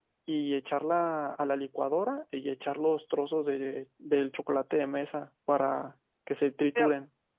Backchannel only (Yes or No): No